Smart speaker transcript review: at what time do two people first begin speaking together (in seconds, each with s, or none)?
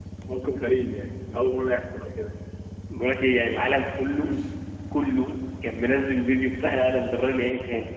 none